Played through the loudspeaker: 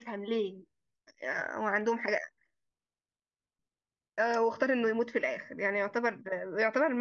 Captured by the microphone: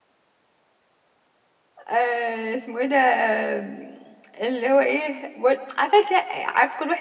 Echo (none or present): none